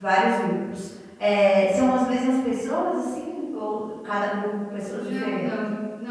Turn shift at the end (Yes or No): Yes